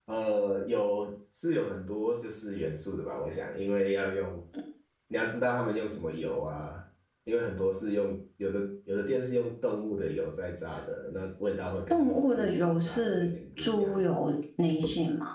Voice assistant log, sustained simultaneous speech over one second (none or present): present